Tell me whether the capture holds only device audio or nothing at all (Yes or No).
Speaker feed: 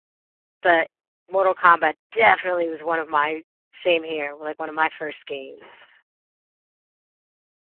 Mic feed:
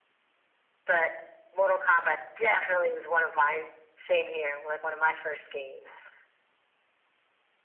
Yes